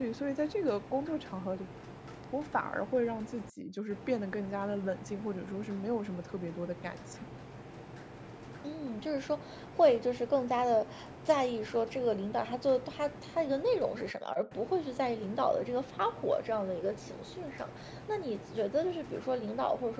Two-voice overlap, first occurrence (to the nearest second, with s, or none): none